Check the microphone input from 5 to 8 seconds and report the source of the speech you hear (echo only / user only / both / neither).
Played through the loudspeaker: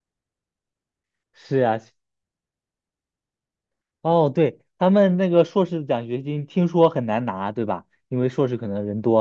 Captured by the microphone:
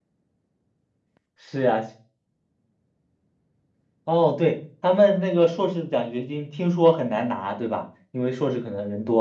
echo only